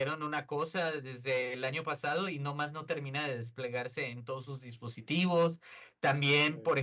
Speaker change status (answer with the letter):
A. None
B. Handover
A